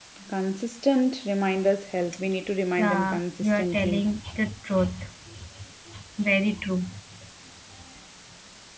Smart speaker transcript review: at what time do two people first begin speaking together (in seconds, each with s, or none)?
2.8 s